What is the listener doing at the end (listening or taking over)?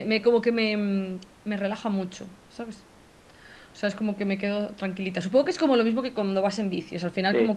listening